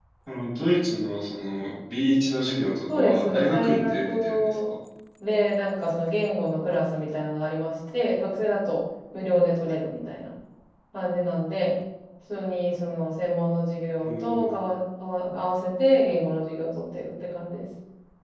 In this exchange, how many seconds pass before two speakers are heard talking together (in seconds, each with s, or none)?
2.9 s